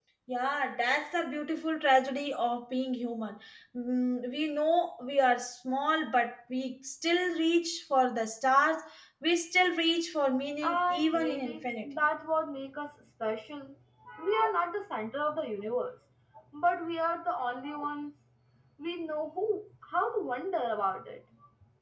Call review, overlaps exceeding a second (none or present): present